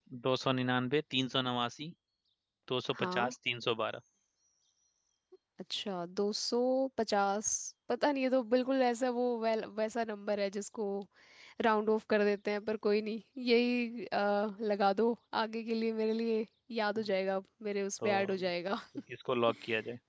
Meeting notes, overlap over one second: none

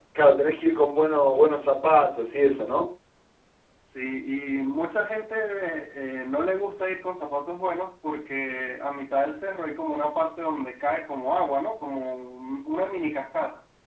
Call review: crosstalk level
none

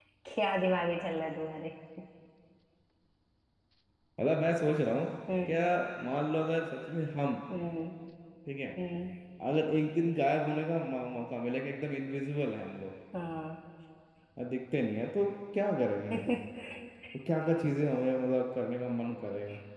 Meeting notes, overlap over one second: none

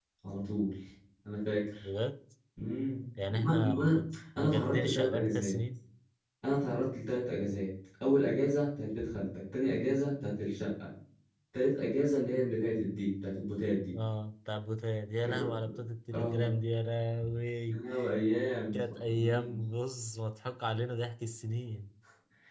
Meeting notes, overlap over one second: present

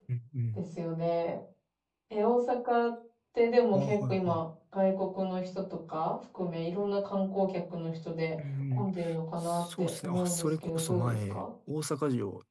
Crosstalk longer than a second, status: present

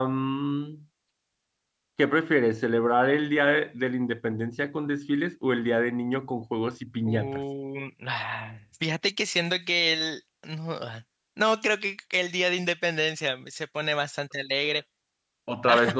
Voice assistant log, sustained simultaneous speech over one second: none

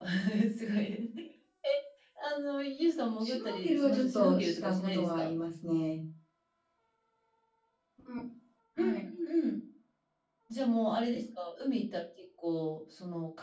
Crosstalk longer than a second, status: present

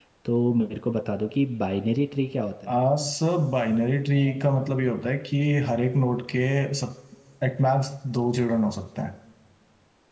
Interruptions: none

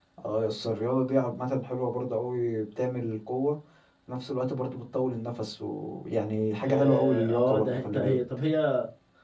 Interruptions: present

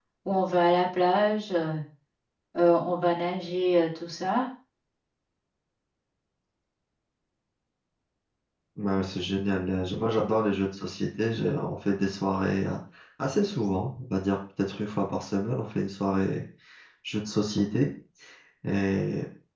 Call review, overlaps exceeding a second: none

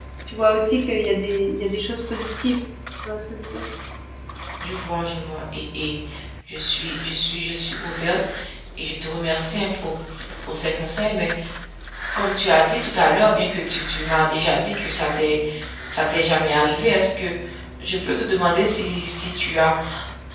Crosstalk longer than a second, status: none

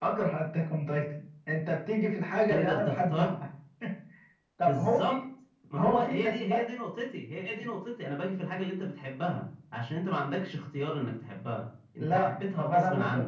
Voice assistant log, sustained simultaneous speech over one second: present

